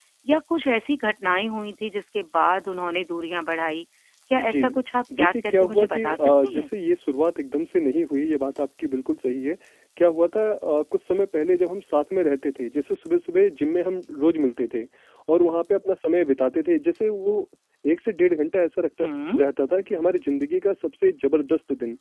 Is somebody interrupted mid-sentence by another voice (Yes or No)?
Yes